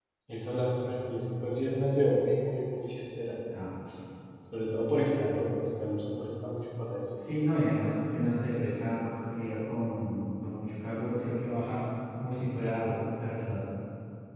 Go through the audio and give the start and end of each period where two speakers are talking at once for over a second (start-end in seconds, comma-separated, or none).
none